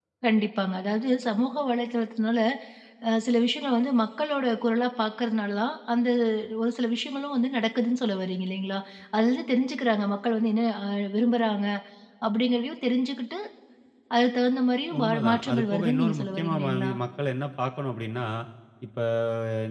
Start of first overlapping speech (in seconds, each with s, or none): 15.0 s